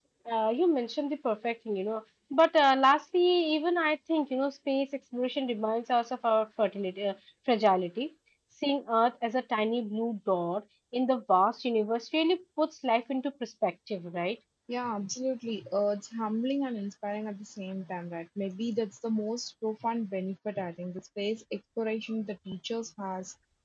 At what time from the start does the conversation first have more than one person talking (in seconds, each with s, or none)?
none